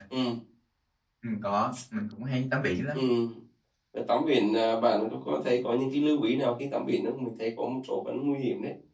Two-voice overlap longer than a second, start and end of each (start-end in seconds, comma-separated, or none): none